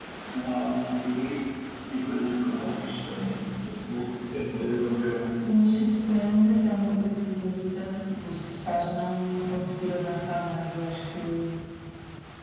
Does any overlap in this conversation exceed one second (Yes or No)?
No